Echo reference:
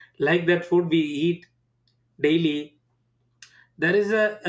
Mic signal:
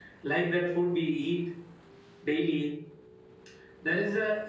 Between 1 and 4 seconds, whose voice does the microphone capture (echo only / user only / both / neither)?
echo only